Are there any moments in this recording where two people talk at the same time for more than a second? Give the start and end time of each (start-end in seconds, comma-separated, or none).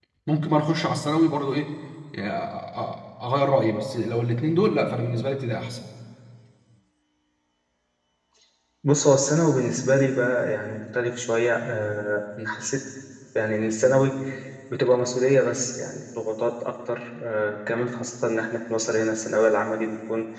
none